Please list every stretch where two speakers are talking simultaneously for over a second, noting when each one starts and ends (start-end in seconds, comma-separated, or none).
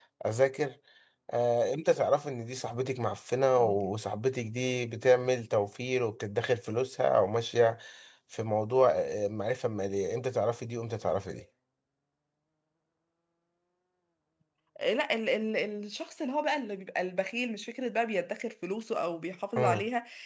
none